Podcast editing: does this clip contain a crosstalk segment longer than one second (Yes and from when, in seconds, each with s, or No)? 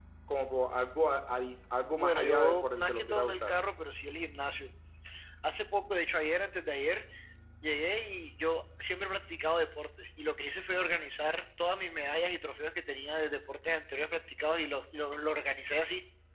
Yes, from 2.0 s